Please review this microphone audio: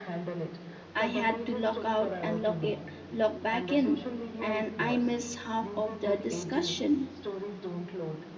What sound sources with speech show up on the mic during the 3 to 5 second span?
both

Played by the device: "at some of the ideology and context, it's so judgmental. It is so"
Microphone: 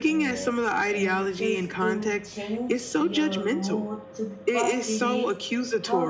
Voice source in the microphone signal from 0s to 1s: both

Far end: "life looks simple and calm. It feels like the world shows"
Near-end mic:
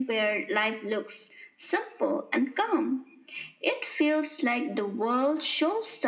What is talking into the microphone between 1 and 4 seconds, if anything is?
echo only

